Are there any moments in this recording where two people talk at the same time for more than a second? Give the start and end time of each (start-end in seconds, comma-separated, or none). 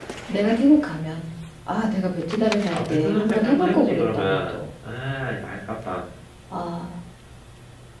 2.7-4.6